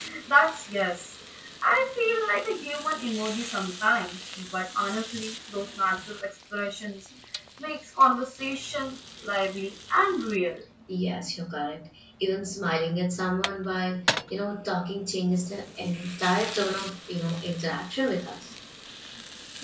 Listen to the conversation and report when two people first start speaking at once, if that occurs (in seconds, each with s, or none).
none